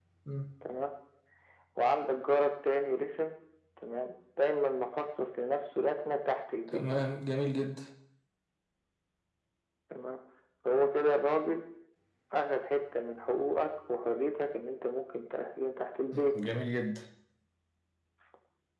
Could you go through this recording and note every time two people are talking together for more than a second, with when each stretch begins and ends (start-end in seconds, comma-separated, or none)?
none